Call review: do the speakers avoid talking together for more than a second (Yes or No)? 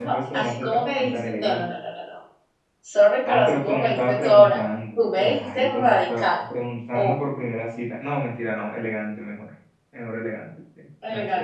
No